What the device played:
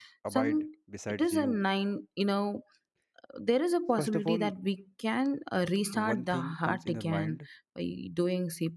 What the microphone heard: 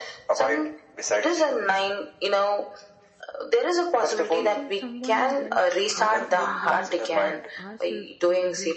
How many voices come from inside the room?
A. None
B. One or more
B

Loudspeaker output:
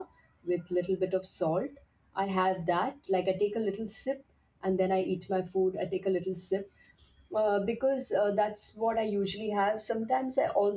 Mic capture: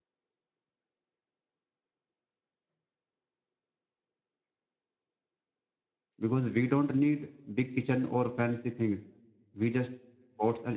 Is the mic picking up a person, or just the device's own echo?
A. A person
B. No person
A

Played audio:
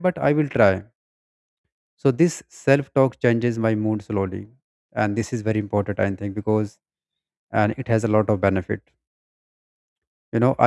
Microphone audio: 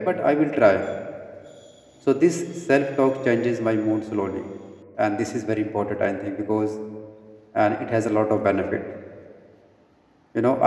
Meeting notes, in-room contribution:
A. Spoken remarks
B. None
B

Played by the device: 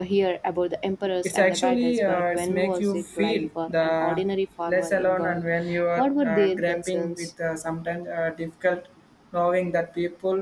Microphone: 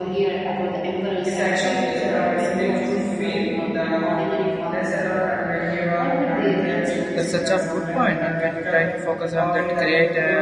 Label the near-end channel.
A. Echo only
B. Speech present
B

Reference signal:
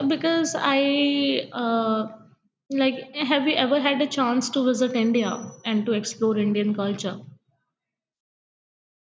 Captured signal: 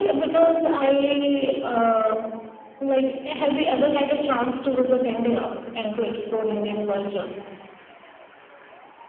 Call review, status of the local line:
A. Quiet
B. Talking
A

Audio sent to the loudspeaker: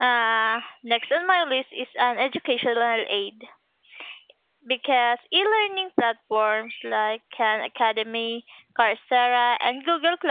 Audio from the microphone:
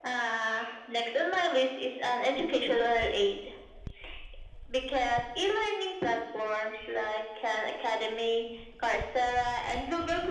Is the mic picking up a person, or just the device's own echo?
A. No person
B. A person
A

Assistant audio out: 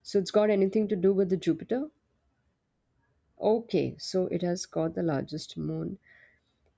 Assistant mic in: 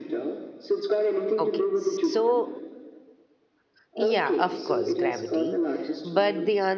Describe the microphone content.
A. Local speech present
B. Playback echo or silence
A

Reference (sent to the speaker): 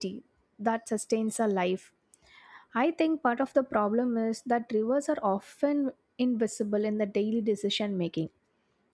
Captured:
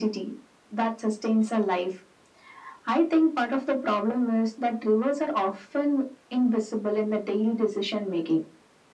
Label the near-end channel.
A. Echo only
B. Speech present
A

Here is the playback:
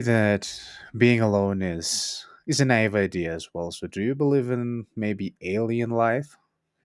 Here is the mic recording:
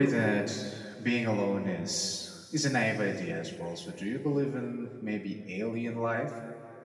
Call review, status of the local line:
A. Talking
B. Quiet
B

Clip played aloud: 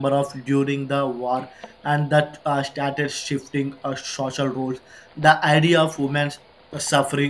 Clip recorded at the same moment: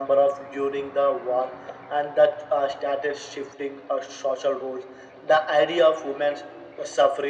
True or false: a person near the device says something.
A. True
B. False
B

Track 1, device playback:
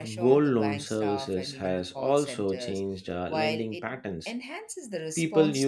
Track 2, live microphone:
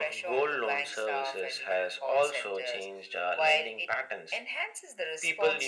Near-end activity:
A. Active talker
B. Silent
B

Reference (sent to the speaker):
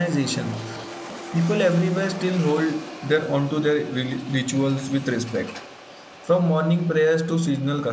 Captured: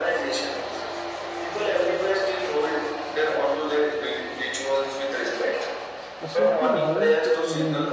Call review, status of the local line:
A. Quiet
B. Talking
B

